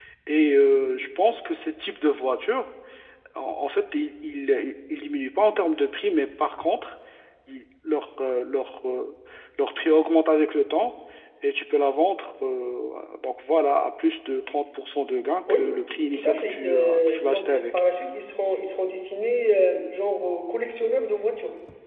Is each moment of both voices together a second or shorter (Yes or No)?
No